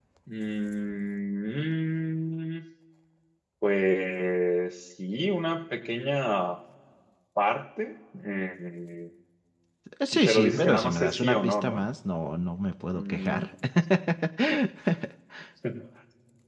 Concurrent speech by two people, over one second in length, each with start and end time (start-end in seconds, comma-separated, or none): 10.2-11.8